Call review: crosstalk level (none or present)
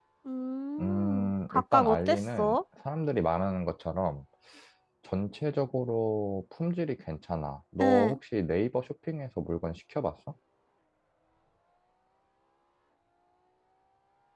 present